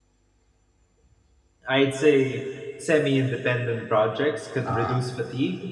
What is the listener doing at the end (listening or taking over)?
listening